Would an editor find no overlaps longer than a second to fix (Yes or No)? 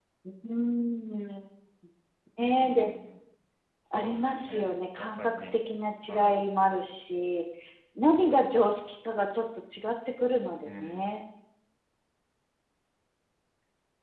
No